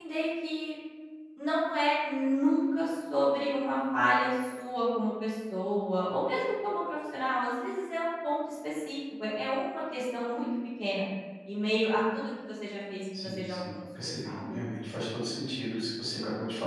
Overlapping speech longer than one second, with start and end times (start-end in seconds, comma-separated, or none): 13.2-14.6